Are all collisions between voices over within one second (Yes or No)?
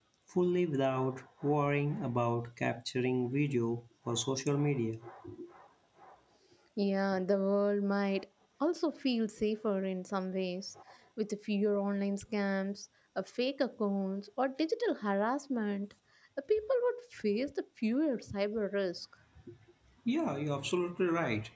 Yes